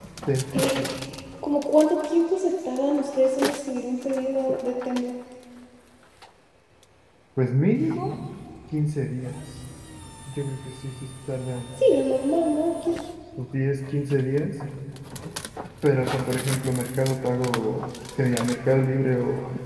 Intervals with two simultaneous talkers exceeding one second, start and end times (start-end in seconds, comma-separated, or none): none